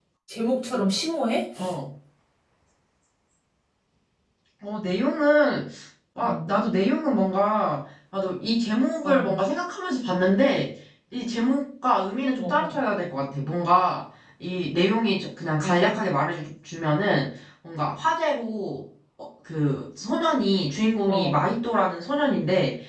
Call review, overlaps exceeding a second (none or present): none